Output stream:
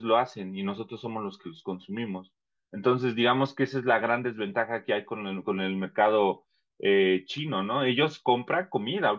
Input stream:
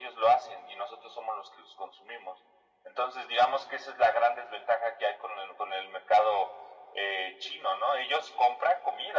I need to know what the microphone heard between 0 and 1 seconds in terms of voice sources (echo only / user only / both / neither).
echo only